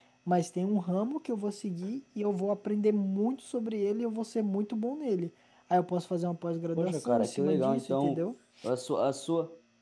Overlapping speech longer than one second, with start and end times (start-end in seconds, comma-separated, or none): 6.8-8.2